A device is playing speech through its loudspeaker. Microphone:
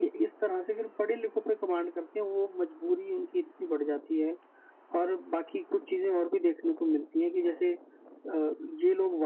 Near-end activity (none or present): none